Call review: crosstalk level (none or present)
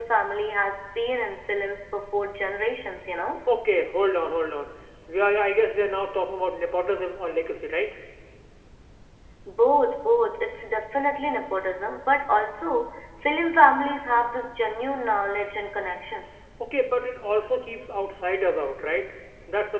none